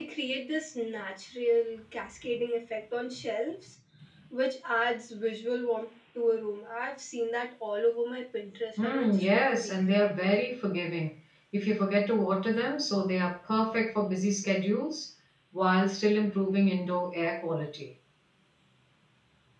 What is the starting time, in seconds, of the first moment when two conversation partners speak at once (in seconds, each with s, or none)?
8.8 s